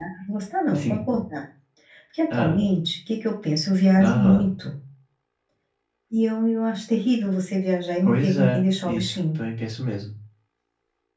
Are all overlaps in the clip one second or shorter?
No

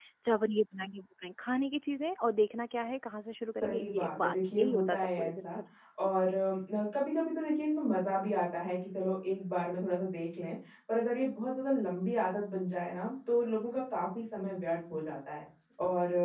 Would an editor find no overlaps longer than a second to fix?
No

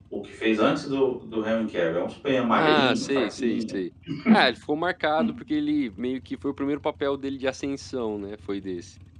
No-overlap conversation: No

